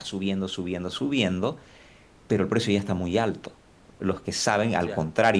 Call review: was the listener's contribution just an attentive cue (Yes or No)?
Yes